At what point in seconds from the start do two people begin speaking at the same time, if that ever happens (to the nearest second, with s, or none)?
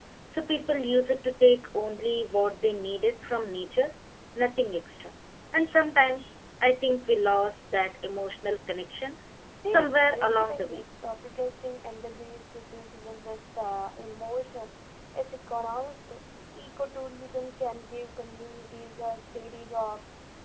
10 s